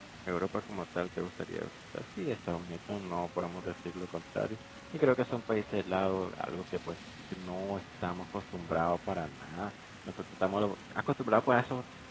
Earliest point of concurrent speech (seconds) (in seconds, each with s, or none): none